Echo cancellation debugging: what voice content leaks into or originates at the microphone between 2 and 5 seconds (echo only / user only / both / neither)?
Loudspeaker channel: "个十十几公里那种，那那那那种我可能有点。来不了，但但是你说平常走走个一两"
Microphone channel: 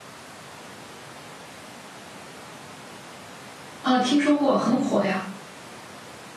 user only